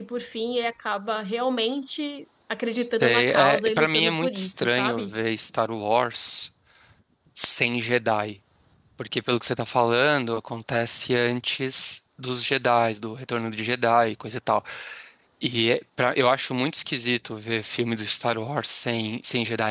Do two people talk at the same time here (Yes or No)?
Yes